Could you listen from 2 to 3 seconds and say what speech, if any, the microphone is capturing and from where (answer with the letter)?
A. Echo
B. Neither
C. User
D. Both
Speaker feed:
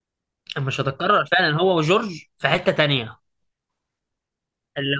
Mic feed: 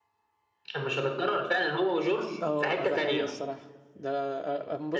D